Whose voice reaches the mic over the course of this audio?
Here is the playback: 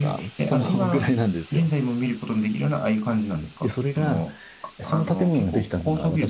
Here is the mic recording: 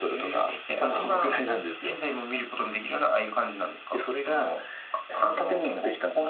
both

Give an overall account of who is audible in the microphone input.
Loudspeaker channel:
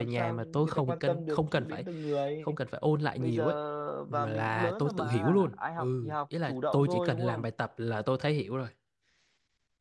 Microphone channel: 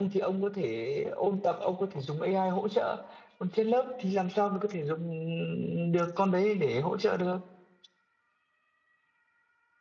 user only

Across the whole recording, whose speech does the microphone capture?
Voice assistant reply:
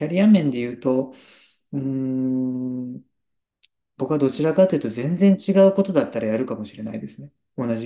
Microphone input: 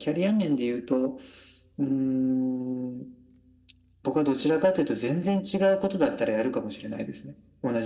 echo only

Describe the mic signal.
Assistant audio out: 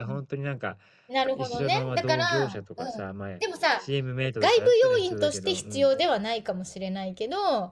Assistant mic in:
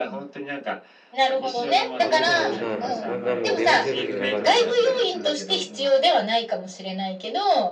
both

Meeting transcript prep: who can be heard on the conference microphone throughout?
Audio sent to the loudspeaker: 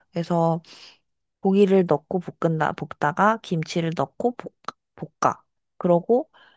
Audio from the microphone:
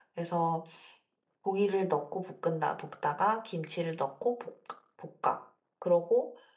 echo only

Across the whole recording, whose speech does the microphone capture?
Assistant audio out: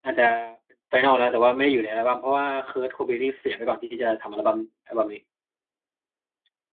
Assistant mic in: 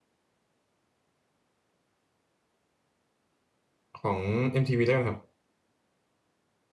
user only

